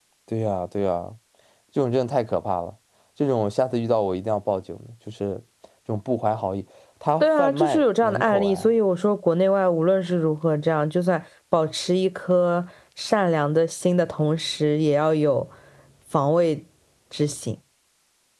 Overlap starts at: 7.2 s

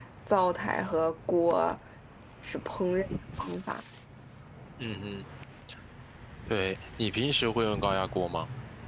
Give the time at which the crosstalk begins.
none

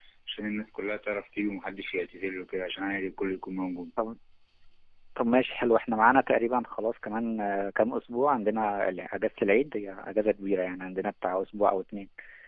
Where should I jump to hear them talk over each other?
none

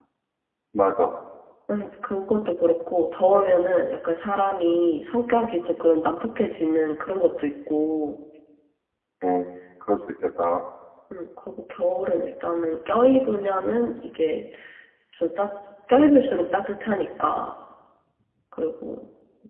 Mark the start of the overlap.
none

